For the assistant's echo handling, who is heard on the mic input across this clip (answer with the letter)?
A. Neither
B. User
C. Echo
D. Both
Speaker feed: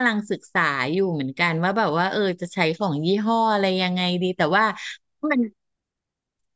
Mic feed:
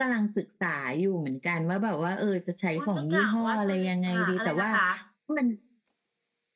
D